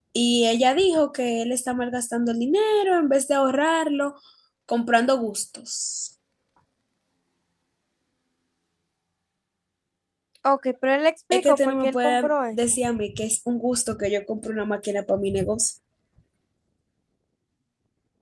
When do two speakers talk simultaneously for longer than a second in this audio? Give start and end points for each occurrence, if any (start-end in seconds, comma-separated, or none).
11.3-12.6